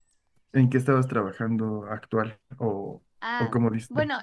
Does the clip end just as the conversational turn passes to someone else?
Yes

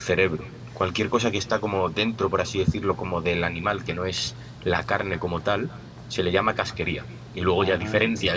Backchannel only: Yes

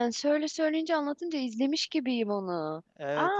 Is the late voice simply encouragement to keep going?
No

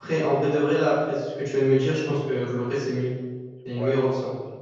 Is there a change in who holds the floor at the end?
Yes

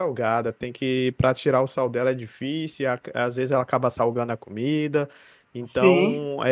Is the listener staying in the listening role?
Yes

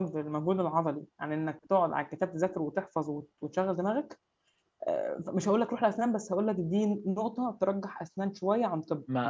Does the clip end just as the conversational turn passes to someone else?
Yes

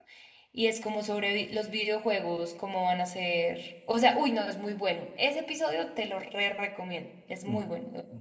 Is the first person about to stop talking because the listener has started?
Yes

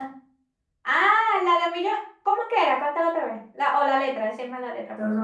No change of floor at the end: No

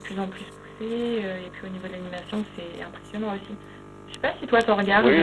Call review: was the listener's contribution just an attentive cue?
No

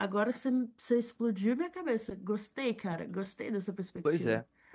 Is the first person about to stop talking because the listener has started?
Yes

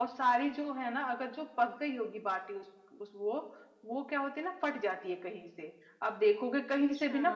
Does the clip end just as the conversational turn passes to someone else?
No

